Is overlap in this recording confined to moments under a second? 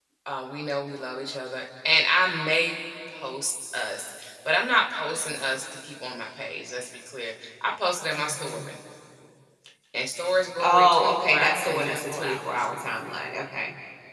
No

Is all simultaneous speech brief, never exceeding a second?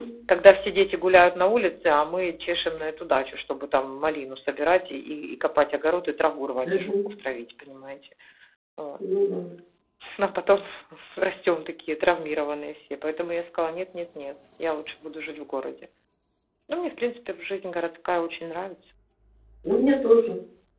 Yes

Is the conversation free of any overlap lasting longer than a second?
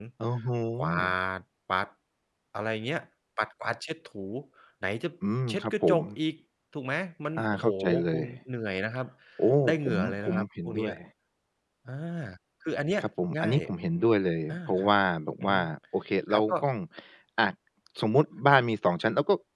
No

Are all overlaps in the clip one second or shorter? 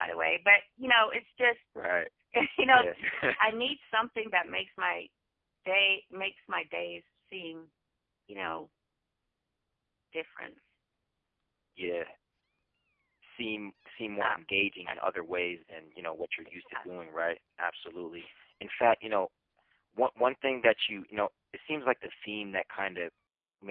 Yes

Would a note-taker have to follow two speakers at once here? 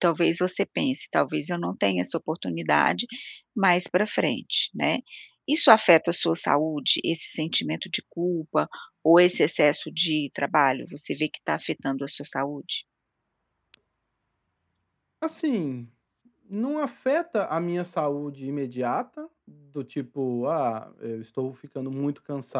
No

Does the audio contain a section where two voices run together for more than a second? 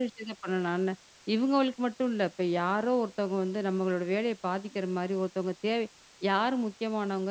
No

